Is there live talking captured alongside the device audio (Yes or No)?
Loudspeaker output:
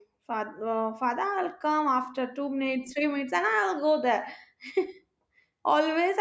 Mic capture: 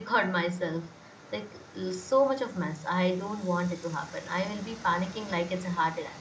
Yes